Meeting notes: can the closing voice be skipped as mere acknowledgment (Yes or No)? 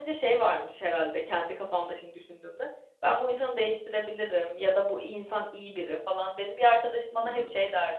Yes